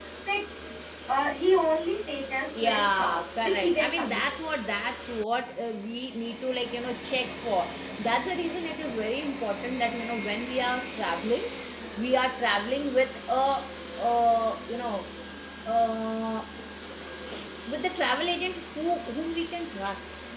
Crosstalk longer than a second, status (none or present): present